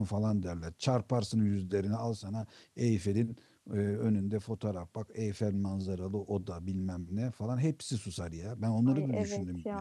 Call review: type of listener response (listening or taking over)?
taking over